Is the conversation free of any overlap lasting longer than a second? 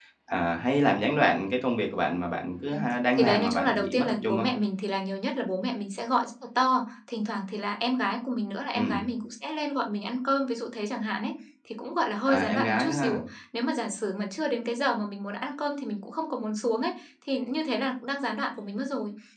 No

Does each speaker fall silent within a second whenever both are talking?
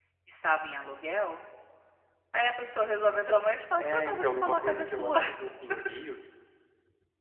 No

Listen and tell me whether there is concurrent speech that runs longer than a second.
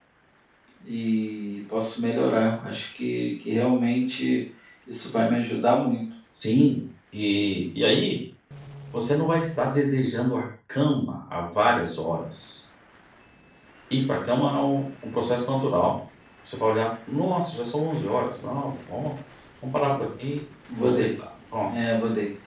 No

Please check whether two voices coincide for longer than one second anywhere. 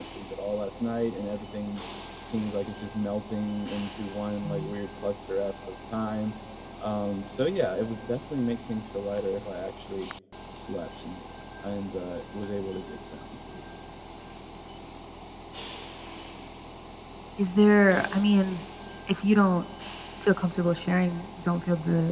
No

